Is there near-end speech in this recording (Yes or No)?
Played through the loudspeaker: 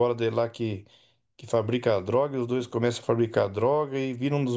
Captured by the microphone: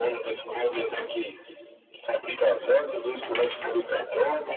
No